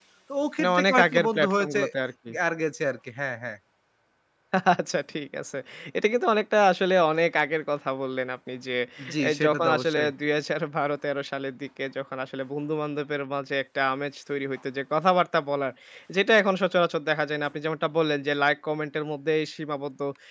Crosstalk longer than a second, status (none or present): present